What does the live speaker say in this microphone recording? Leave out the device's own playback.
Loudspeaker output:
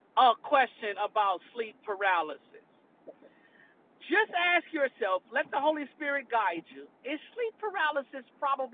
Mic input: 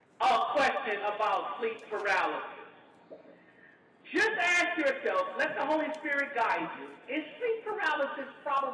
none

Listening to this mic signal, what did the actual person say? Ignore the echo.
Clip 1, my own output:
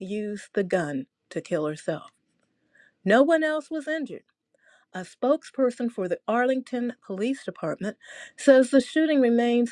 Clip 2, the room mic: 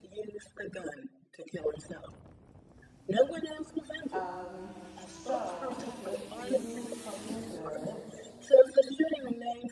Um, so I have a few something goods.

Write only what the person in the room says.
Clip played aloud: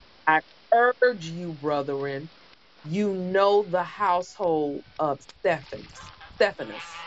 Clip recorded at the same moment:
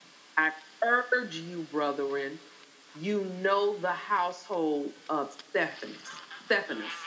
none

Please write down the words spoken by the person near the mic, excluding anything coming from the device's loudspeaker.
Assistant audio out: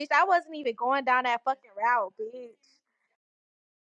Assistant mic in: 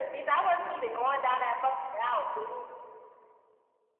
none

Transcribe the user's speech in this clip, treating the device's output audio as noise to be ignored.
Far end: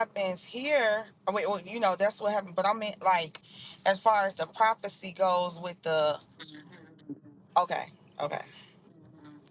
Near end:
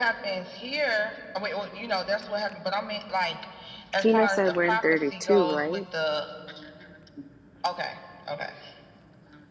Tina said we're in 32, right?

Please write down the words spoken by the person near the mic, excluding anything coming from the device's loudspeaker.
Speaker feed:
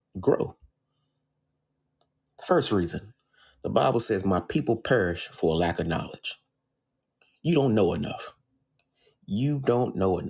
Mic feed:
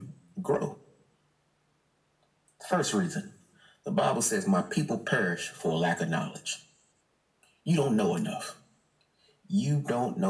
none

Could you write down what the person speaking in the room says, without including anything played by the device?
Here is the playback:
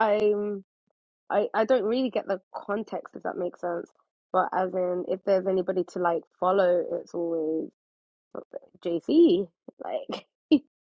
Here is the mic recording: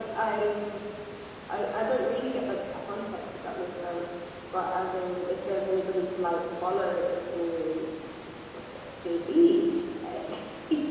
none

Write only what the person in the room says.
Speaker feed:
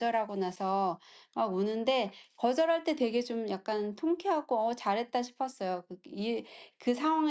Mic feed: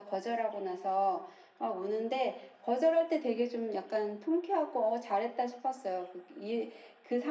none

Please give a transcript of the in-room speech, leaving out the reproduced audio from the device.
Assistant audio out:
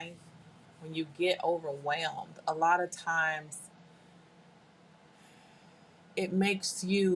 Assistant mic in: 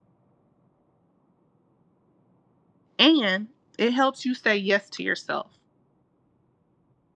and it helps you say yes to yourself.

